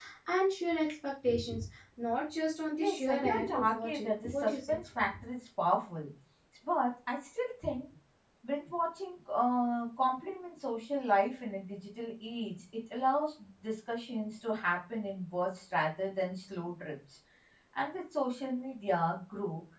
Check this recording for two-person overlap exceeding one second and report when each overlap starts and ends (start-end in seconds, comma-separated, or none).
2.8-4.8